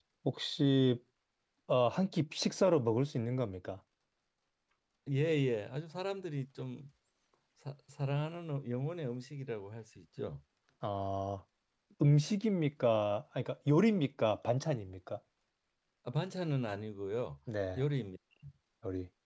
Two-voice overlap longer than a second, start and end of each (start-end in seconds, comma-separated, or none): none